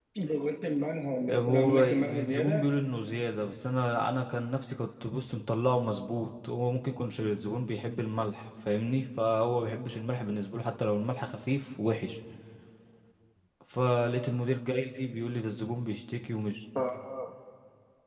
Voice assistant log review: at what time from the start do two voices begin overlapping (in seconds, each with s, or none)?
1.3 s